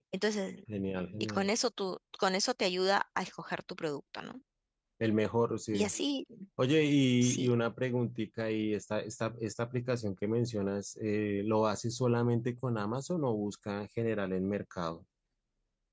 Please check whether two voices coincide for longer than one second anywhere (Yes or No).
No